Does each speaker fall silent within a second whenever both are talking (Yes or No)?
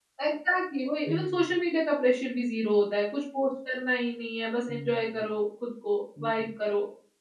Yes